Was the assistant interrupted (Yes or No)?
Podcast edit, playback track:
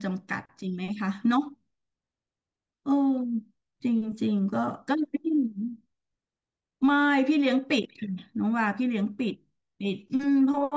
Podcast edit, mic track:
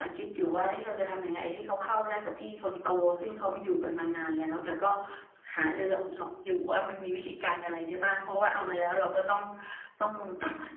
Yes